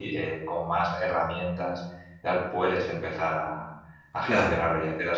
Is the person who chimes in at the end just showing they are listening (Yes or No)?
Yes